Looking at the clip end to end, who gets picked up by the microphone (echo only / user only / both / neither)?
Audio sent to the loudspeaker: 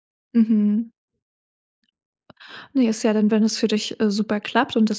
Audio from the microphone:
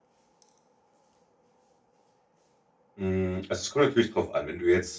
user only